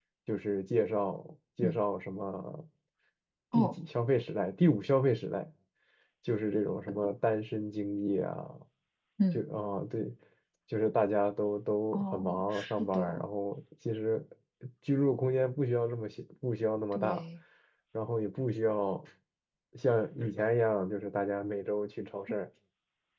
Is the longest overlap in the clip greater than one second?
Yes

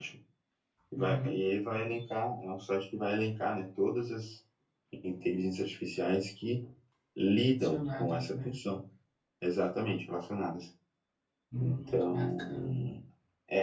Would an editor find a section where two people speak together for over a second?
Yes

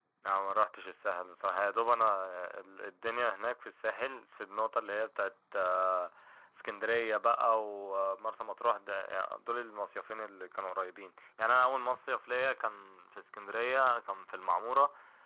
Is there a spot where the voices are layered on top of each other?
No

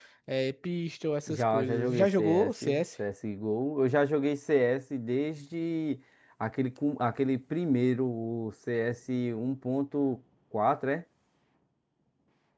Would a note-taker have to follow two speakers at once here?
Yes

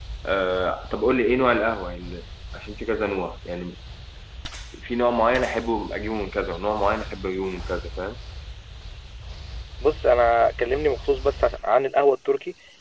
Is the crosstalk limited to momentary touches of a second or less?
Yes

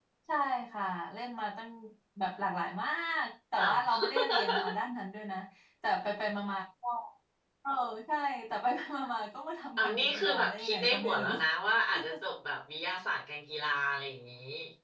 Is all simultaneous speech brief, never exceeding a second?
No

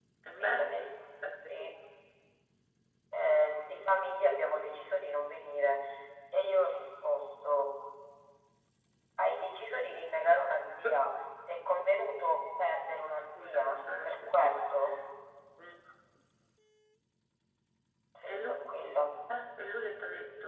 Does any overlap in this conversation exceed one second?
Yes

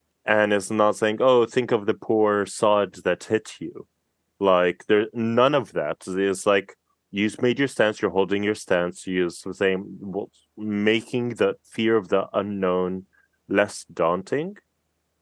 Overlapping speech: No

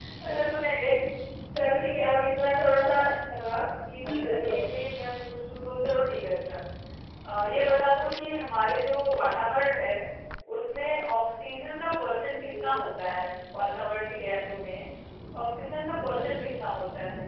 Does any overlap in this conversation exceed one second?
No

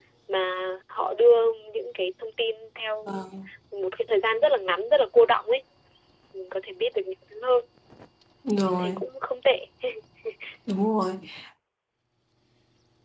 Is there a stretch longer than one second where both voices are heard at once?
No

